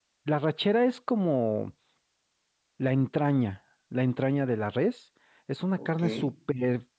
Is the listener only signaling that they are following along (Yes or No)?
Yes